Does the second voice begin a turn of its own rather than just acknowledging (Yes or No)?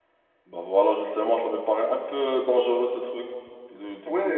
Yes